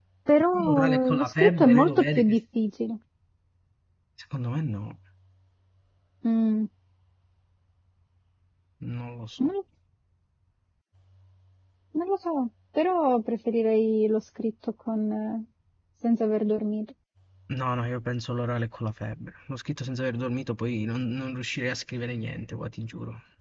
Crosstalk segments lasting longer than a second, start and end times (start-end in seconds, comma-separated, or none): 0.6-2.4